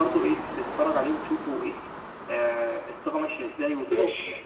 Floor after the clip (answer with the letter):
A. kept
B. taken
A